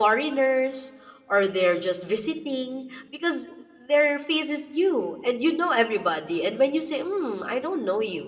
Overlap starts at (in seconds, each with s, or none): none